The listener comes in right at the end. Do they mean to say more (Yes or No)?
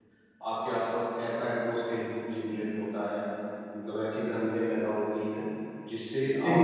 Yes